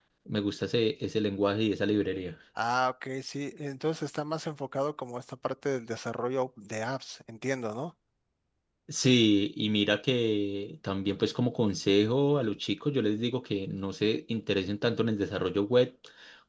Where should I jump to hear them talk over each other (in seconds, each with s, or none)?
none